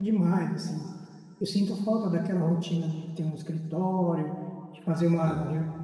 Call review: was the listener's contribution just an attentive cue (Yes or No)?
Yes